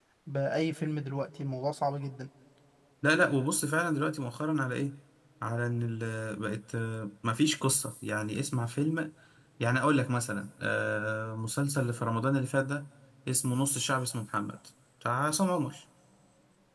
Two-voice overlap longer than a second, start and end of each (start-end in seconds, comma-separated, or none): none